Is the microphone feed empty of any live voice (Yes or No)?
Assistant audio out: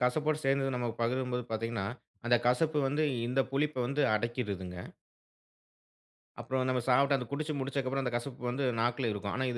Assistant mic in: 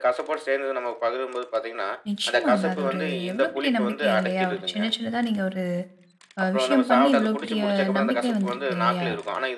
No